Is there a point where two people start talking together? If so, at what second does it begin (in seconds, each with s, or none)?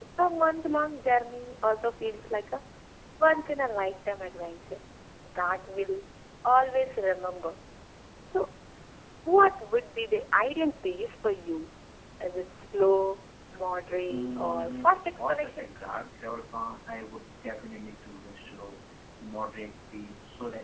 14.1 s